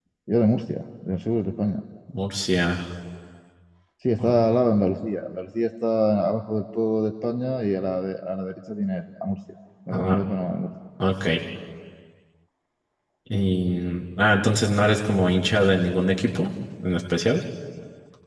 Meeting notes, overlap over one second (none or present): none